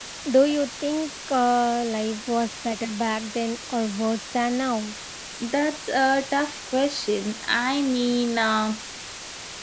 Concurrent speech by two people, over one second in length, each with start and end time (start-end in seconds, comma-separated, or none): none